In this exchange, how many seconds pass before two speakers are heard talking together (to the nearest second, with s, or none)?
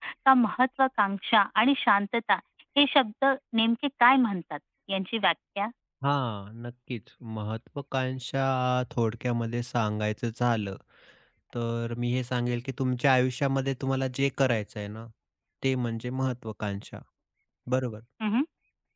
none